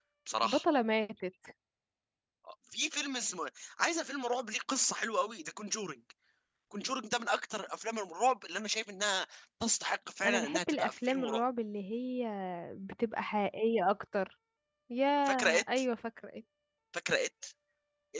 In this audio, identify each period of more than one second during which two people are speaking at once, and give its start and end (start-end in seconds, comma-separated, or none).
10.2-11.4